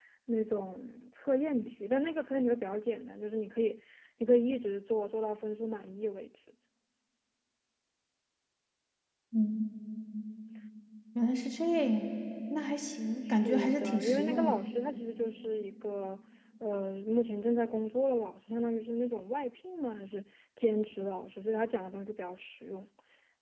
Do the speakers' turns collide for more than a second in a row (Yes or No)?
Yes